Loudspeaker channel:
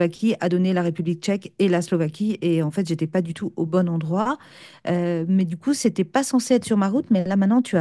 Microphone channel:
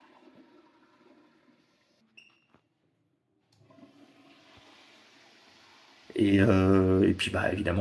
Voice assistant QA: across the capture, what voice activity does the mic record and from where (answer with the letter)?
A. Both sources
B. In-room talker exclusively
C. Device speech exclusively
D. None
B